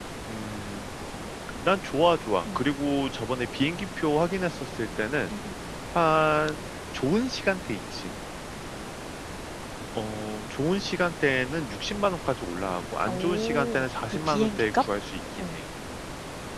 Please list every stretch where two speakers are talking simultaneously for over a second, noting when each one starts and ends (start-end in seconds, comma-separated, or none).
13.1-14.8